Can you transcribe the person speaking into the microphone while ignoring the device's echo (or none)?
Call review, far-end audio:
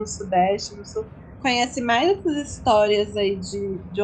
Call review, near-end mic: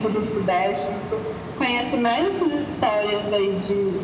none